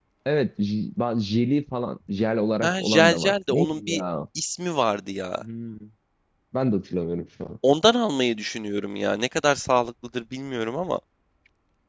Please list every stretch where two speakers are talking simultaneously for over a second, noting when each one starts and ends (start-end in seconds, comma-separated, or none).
2.6-4.0